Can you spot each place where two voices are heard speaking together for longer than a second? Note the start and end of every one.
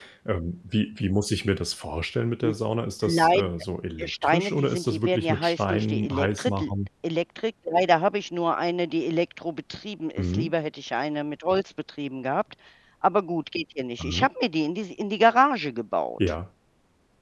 4.0-6.7

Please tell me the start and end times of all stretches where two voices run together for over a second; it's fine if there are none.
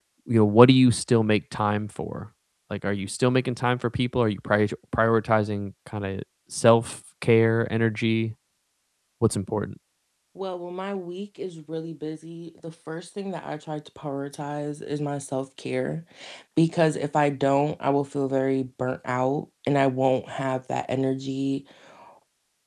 none

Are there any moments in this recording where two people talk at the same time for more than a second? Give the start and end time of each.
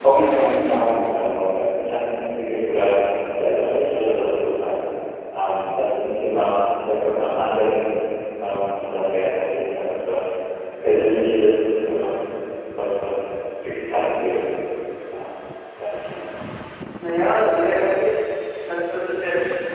none

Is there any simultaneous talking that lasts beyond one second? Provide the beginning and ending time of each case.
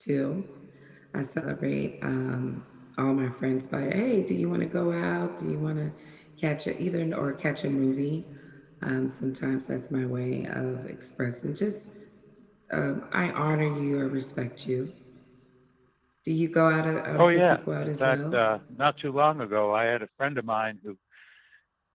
17.1-18.4

